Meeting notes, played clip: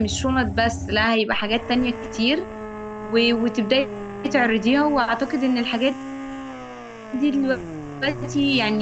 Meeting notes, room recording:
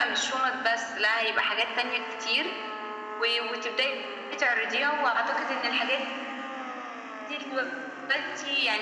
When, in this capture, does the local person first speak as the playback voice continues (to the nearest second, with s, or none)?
none